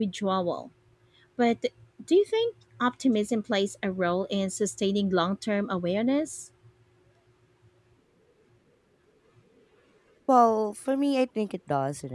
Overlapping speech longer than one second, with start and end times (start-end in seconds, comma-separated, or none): none